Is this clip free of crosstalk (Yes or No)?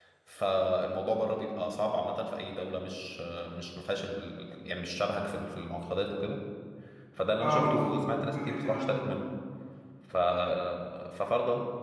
No